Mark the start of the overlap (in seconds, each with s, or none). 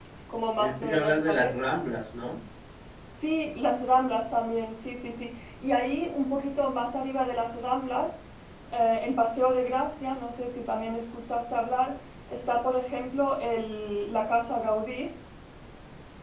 0.6 s